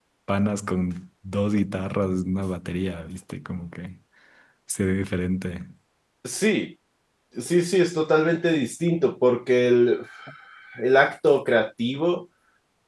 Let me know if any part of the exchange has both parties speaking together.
No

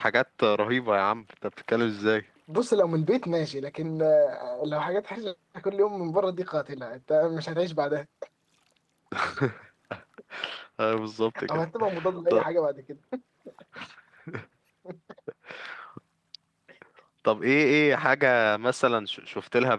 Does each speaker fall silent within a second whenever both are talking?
Yes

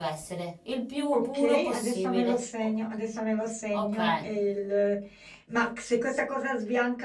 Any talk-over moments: Yes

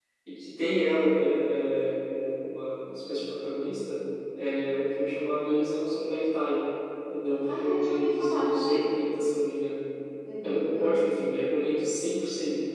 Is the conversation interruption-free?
No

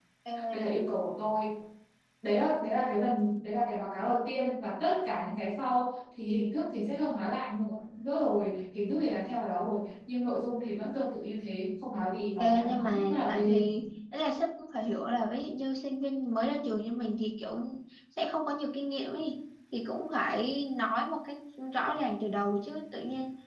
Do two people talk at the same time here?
Yes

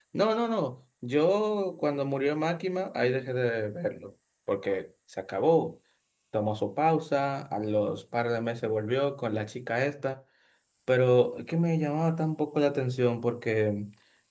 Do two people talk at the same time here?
No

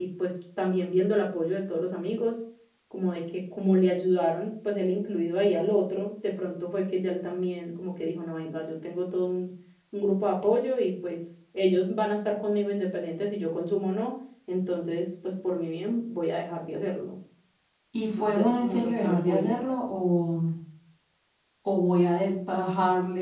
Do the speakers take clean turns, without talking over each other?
No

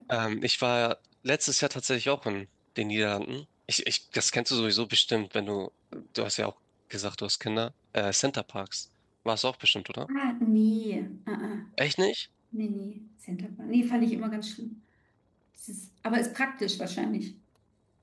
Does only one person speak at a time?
Yes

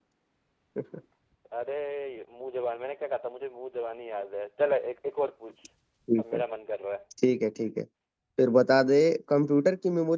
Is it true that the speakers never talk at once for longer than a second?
Yes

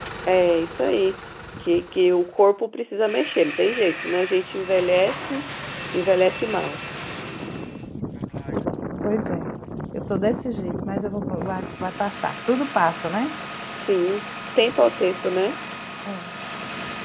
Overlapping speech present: No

